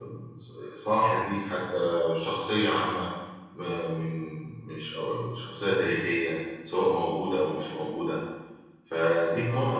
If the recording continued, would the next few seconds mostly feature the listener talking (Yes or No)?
No